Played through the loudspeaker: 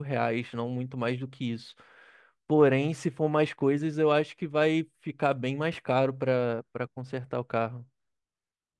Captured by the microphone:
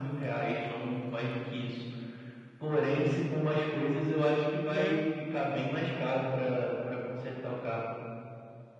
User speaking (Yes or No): Yes